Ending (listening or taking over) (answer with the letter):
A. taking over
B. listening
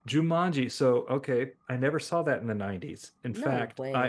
B